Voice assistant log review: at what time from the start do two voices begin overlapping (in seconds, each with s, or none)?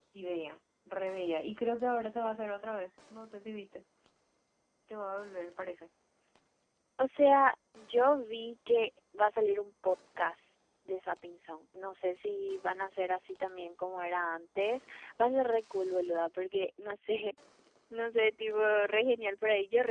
none